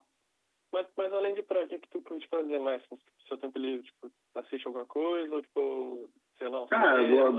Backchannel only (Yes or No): No